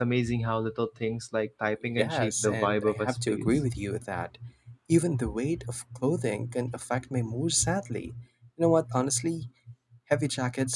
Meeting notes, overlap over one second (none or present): present